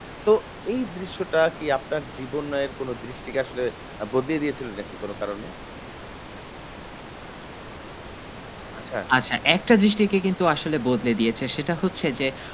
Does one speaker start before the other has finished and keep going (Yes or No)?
No